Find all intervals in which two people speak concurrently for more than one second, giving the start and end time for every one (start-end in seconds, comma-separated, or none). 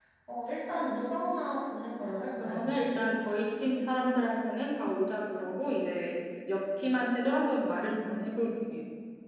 none